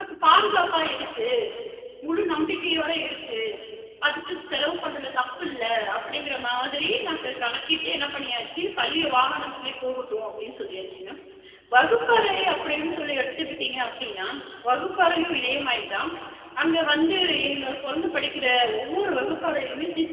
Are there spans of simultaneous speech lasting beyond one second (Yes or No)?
No